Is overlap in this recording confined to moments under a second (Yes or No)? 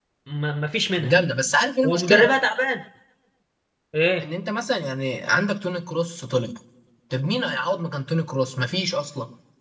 Yes